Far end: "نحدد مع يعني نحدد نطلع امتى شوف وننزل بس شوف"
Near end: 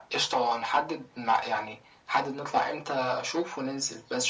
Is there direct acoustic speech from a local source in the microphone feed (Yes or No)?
No